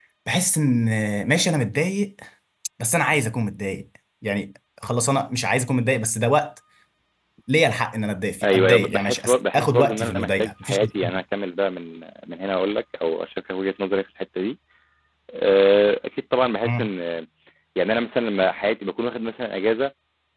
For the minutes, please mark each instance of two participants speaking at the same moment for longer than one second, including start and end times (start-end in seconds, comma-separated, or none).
8.4-11.2